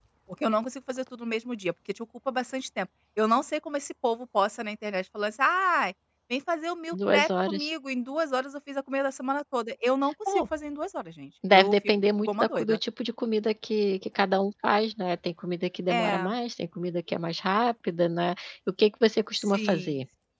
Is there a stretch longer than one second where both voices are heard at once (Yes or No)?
Yes